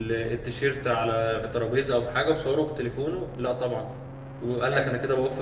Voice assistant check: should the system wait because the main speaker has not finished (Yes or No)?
Yes